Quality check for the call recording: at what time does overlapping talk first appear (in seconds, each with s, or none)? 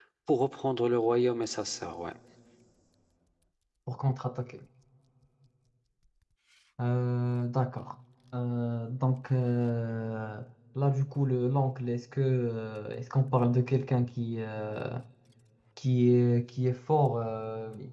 none